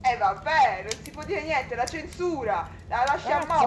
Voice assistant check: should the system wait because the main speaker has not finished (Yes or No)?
No